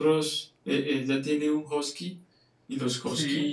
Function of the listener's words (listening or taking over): listening